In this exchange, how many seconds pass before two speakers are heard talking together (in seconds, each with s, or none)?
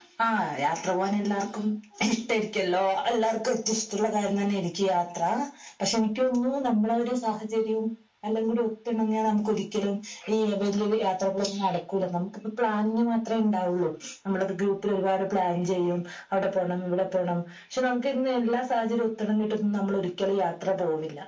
none